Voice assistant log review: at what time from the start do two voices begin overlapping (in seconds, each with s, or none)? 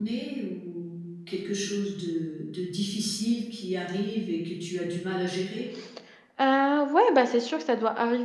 none